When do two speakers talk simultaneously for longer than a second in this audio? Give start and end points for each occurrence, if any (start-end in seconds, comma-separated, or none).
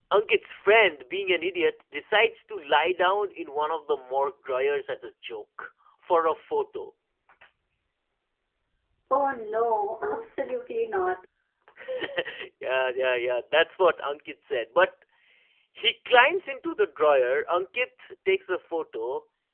none